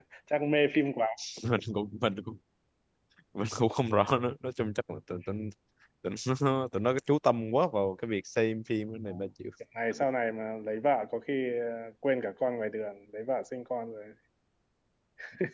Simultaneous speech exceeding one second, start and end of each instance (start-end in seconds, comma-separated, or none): none